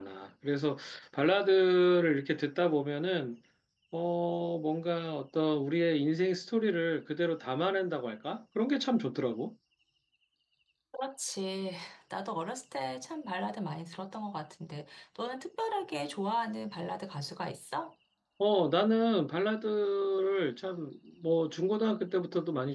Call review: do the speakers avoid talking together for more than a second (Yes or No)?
Yes